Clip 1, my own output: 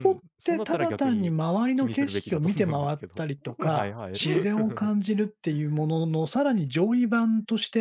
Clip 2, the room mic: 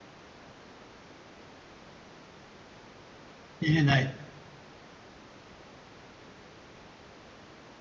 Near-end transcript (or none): 入れない、